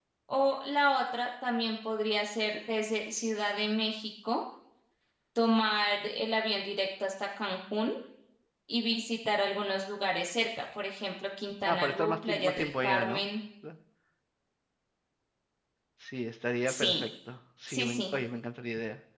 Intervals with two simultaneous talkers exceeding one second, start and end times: 11.7-13.2

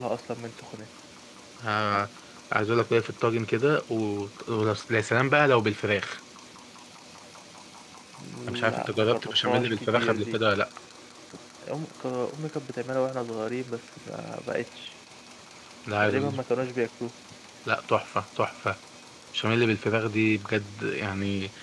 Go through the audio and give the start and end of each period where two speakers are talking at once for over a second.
8.7-10.4

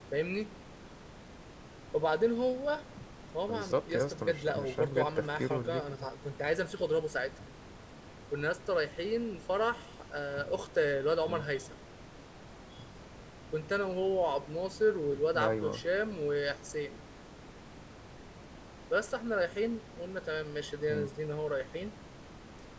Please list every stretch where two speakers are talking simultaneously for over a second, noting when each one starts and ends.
3.5-6.1

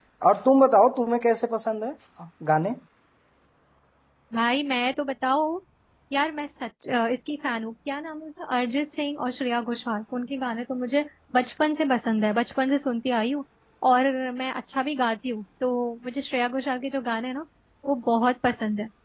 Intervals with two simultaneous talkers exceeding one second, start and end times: none

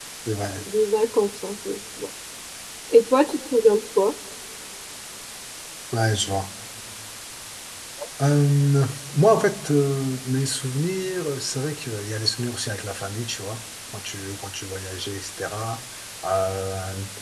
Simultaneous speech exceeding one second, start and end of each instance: none

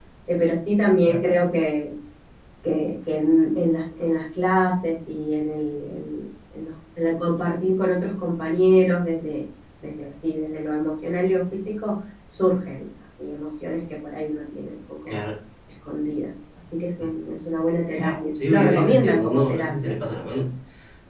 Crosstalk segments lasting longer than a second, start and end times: 18.5-19.9

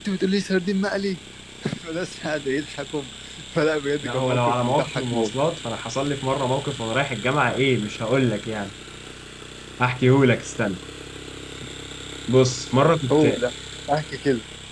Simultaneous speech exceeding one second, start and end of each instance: 4.0-5.3

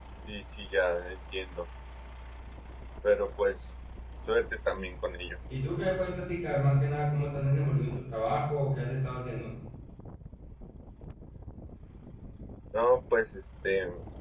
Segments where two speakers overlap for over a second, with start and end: none

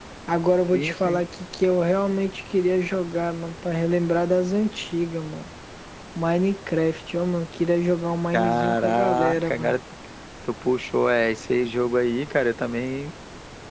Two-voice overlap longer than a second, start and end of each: 8.3-9.8

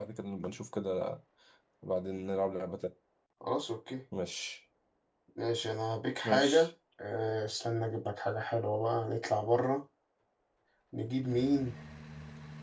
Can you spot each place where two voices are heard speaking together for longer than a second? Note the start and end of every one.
none

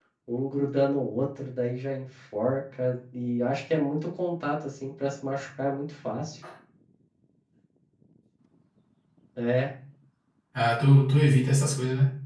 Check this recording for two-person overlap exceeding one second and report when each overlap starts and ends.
none

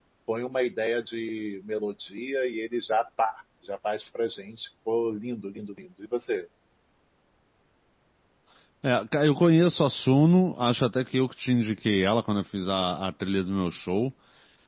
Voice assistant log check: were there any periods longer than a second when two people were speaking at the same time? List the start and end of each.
none

